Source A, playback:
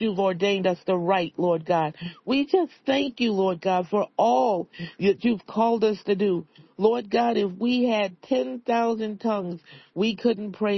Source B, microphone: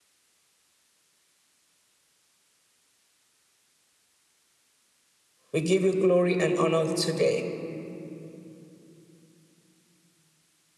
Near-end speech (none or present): present